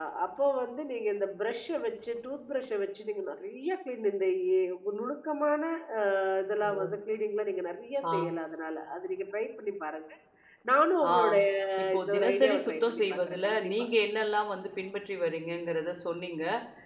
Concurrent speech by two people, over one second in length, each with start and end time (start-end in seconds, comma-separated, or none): 12.0-13.7